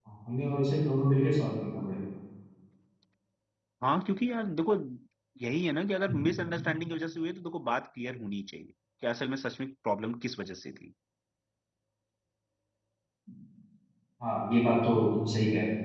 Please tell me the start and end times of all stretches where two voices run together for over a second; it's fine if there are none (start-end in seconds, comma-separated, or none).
none